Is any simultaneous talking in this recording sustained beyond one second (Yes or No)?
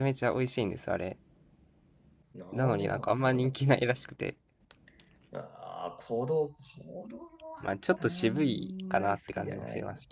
Yes